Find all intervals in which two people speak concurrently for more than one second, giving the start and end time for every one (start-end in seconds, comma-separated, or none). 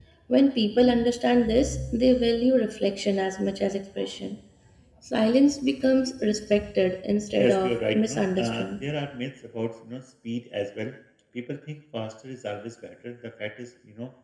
7.4-8.9